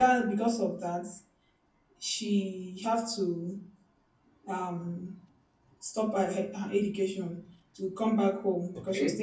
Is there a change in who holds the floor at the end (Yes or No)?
No